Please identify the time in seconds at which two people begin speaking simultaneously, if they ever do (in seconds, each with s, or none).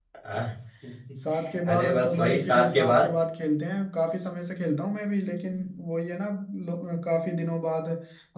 1.6 s